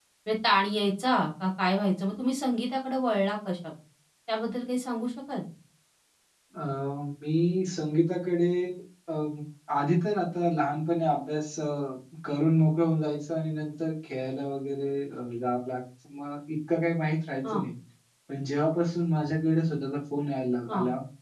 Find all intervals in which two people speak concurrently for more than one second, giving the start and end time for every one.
none

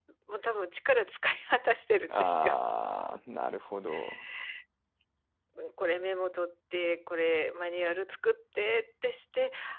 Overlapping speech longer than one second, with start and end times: none

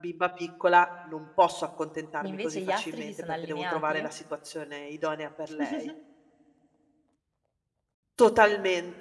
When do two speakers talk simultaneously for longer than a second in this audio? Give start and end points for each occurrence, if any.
2.2-4.0

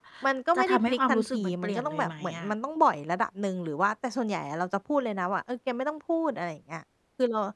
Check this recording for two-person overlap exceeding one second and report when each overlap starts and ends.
0.6-2.5

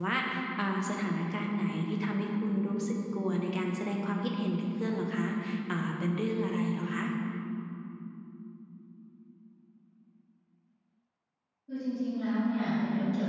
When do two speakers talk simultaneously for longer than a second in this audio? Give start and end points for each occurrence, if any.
none

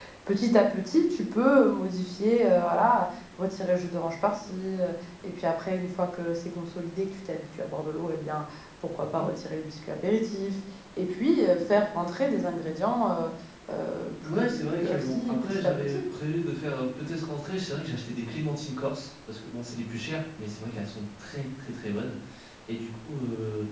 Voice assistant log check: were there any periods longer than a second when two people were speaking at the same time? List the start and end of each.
14.3-16.0

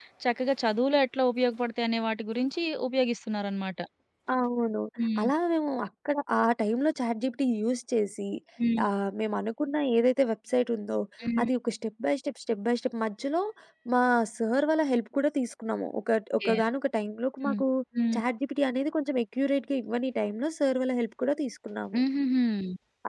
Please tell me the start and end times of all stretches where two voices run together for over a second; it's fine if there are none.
none

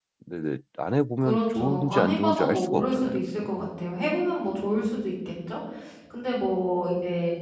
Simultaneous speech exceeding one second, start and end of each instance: 1.2-3.5

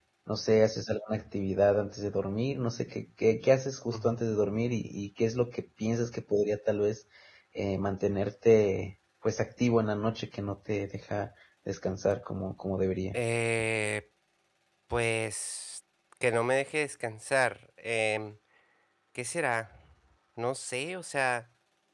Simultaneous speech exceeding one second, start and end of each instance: none

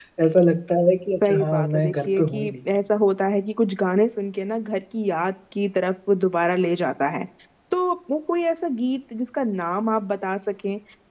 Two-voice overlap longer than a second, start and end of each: 1.2-2.5

